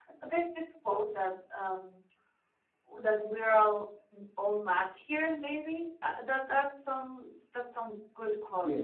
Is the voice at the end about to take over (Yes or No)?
No